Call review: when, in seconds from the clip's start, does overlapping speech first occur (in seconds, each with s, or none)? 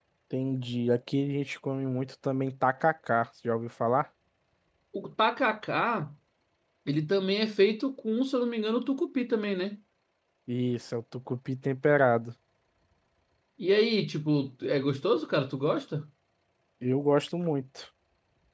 none